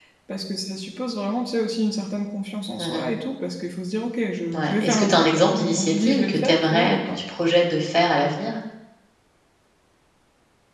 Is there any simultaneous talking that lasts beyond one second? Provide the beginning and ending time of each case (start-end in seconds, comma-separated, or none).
4.5-7.2